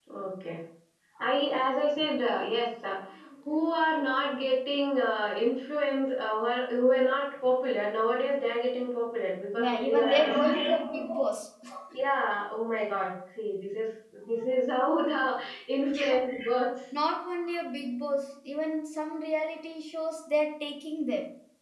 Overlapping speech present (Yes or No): Yes